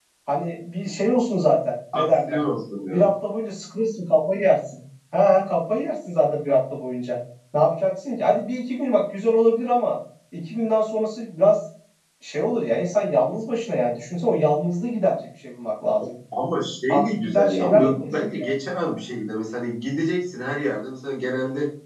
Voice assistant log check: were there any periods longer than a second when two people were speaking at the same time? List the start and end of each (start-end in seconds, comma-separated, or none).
16.9-18.6